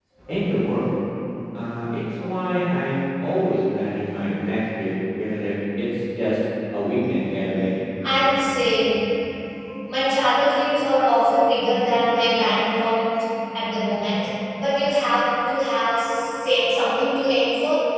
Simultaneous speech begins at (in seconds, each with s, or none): none